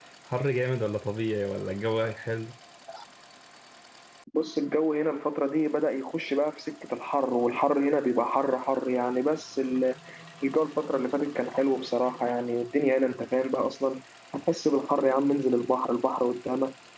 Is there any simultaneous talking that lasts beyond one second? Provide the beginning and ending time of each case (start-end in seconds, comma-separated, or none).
none